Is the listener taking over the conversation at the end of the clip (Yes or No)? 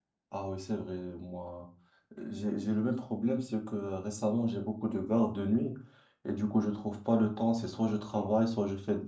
No